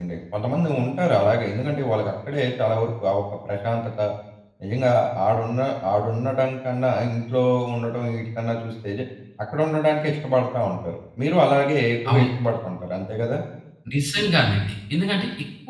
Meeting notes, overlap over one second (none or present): none